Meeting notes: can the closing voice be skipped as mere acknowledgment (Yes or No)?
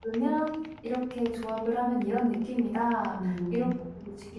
Yes